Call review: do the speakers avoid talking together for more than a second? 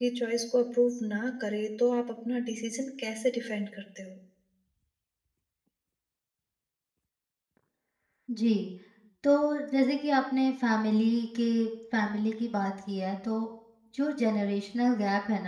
Yes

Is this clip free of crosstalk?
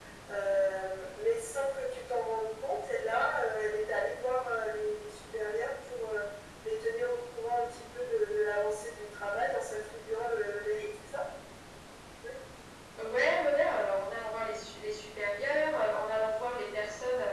Yes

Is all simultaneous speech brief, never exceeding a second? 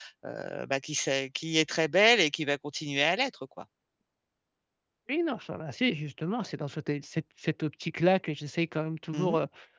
Yes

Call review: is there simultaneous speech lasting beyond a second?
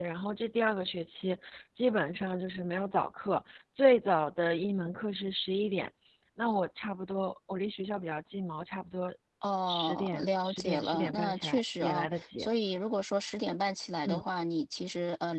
Yes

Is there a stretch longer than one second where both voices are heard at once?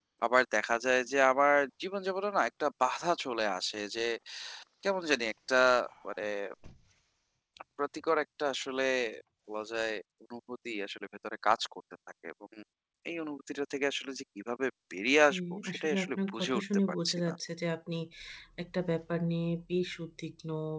Yes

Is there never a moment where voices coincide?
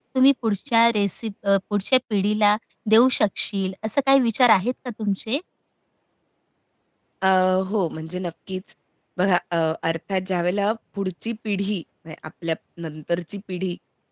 Yes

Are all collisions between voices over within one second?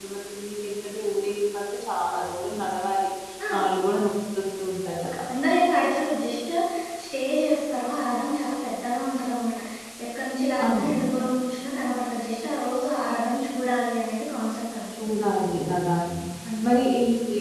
Yes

